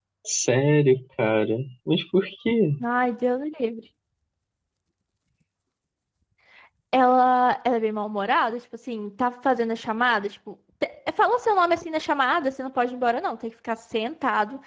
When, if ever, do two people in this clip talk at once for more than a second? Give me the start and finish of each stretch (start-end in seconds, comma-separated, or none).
none